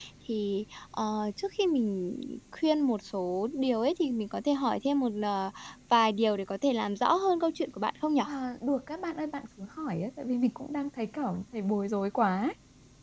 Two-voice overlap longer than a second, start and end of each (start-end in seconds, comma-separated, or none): none